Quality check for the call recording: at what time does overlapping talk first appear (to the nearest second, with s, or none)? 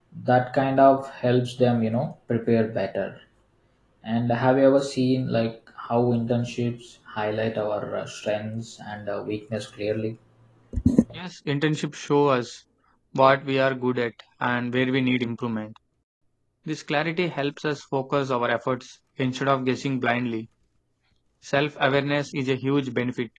none